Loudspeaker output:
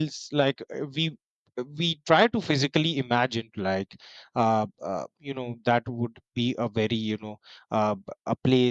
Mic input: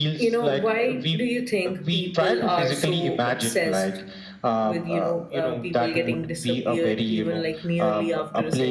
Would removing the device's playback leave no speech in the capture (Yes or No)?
No